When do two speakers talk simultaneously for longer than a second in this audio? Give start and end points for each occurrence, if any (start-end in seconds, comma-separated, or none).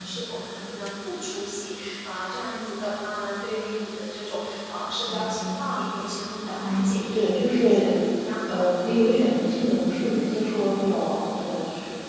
6.5-8.0